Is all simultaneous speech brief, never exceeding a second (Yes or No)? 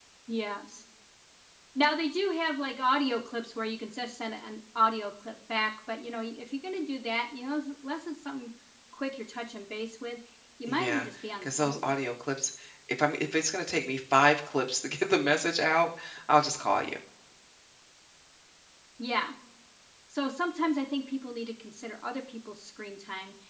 Yes